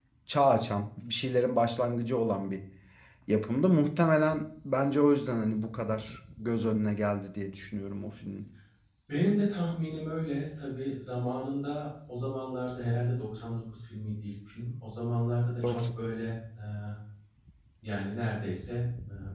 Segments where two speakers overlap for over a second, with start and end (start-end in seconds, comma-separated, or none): none